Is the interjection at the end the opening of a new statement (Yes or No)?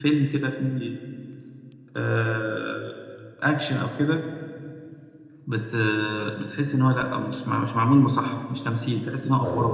Yes